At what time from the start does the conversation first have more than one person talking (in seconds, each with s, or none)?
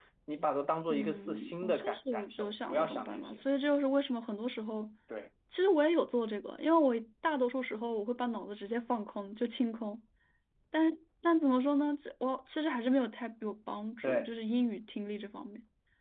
0.9 s